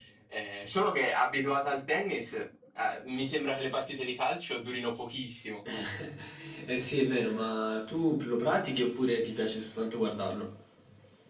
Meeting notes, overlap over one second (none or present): none